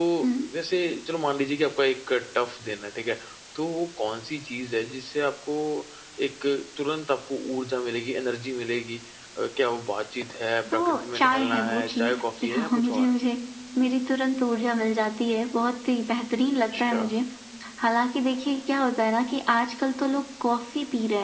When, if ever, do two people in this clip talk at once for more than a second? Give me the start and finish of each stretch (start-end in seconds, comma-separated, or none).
10.7-13.1